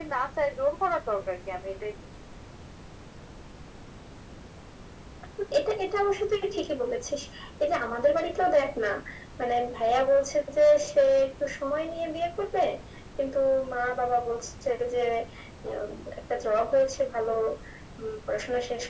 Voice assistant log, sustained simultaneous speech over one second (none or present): none